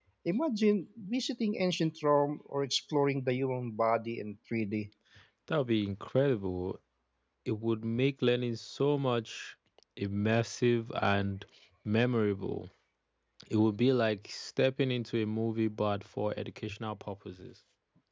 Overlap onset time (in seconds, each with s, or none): none